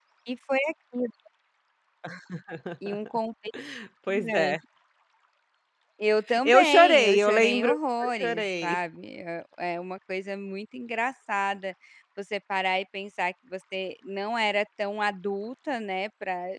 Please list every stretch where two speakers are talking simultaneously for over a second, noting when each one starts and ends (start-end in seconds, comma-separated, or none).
6.4-8.8